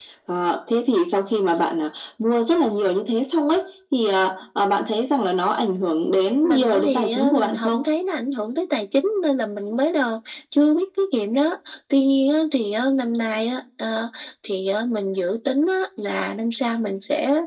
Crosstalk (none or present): present